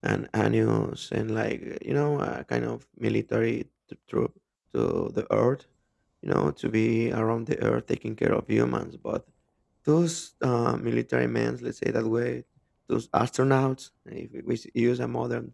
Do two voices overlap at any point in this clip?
No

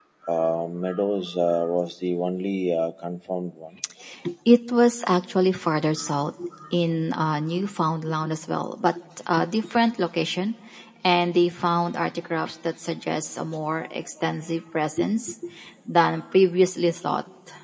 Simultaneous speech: No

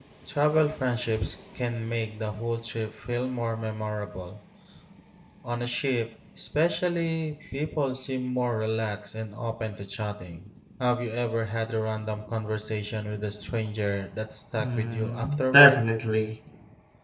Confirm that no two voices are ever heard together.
No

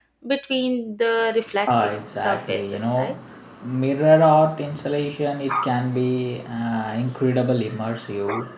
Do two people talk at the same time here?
Yes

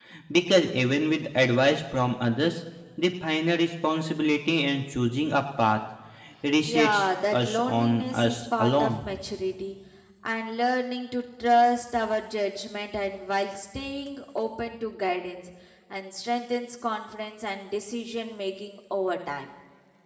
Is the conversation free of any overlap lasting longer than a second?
No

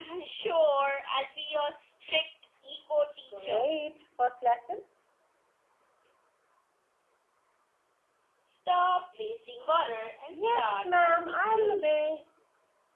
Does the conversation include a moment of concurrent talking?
Yes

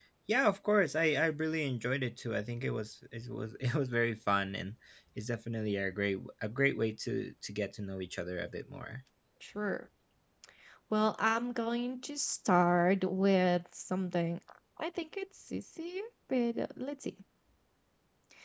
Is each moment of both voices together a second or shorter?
Yes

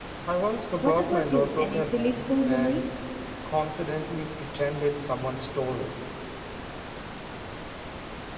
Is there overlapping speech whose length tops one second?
Yes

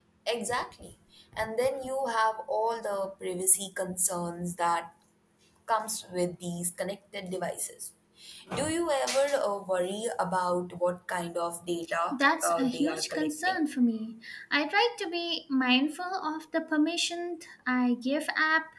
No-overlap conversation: No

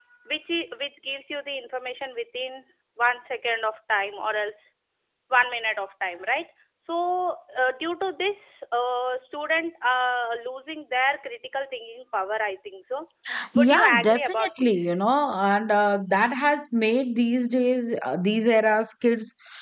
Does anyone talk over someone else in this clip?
Yes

